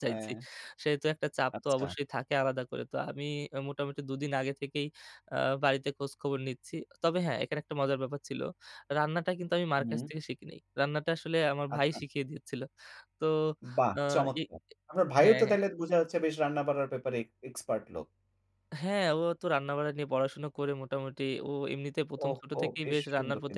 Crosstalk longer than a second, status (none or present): present